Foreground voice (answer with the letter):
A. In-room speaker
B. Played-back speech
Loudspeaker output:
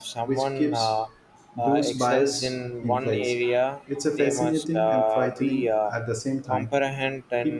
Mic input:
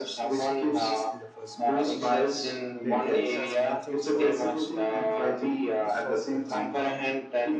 B